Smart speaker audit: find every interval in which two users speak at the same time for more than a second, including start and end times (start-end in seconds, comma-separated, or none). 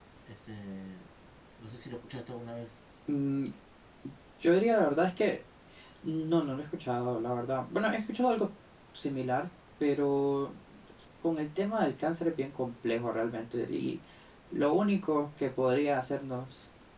none